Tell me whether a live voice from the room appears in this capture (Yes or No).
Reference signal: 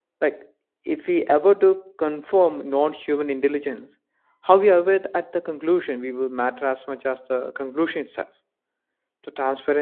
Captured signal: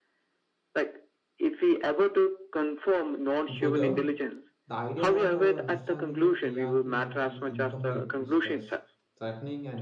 Yes